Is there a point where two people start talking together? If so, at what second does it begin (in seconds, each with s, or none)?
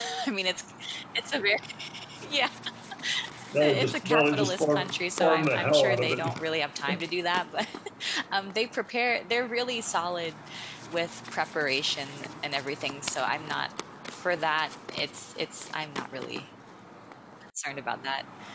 3.6 s